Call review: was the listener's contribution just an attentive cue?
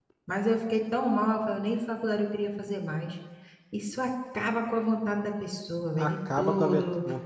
No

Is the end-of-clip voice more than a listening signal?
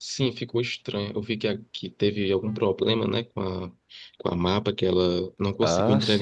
Yes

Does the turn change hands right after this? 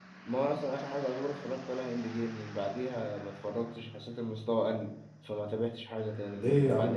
Yes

